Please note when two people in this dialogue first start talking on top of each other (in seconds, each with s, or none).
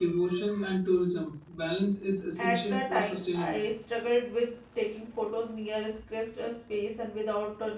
2.4 s